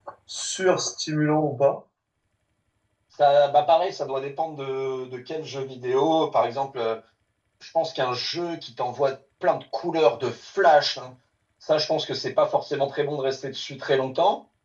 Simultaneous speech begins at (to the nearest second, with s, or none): none